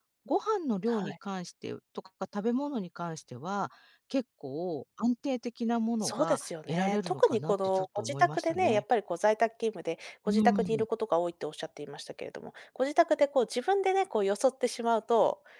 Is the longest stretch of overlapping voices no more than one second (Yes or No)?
No